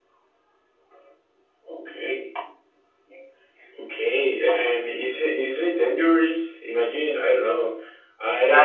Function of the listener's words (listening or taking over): taking over